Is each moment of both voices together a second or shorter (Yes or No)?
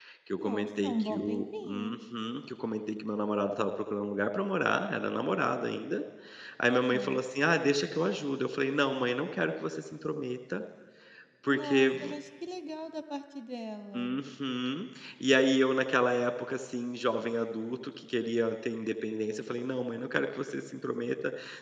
No